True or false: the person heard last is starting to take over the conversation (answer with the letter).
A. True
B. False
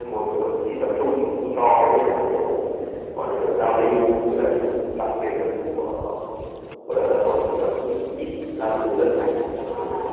A